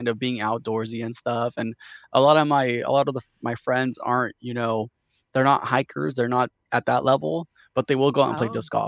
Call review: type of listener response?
listening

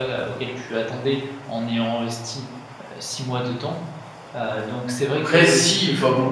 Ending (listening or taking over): taking over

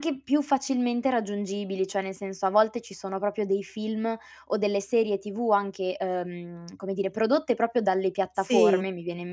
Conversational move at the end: listening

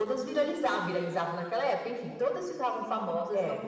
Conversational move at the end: listening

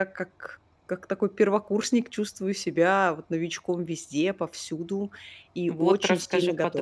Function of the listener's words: taking over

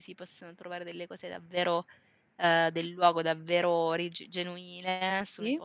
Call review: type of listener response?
listening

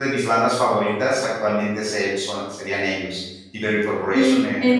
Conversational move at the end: taking over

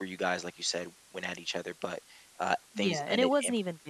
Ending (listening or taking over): taking over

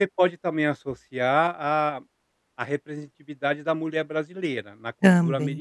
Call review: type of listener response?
listening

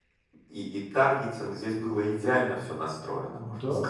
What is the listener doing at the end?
taking over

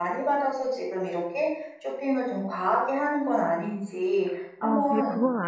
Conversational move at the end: taking over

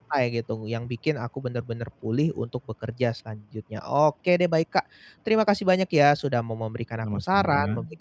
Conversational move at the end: listening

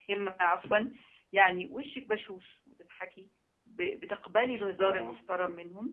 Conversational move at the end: listening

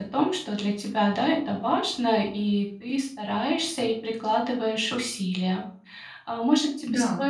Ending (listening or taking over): listening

